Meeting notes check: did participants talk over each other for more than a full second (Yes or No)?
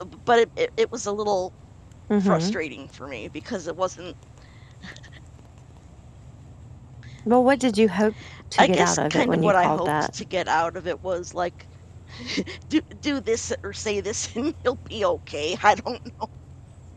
Yes